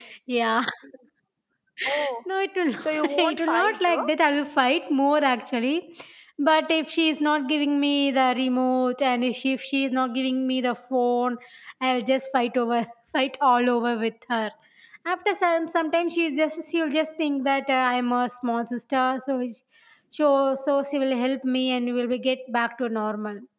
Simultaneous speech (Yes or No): Yes